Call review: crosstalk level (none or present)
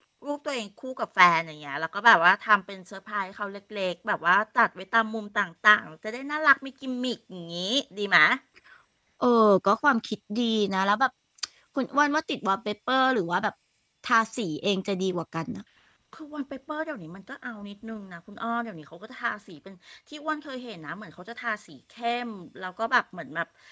none